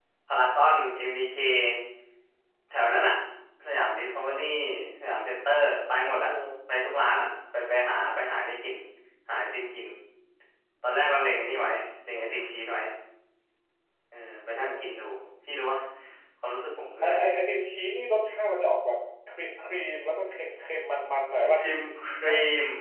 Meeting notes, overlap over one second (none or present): none